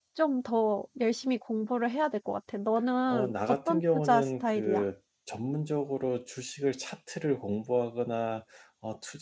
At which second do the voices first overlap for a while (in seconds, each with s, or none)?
3.1 s